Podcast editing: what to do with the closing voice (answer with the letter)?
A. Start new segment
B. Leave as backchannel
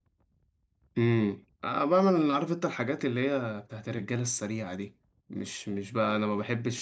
B